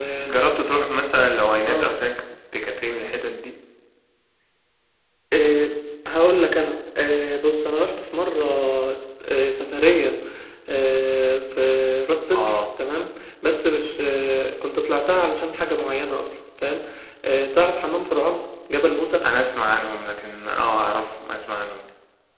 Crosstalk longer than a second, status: none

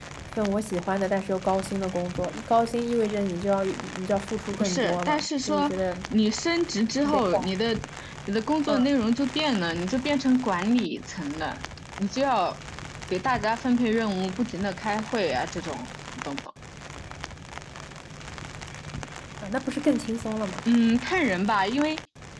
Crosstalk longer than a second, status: present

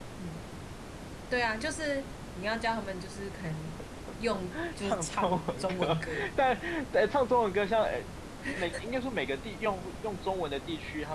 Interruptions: present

